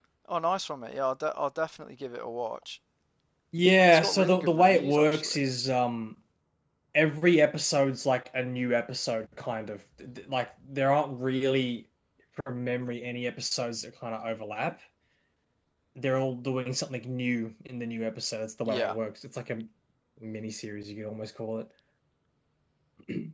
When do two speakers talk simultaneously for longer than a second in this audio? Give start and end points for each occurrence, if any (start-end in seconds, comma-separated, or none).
3.9-5.4